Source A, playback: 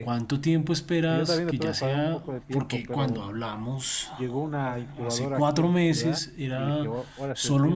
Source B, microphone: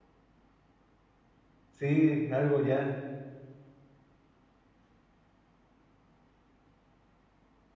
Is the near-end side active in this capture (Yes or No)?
Yes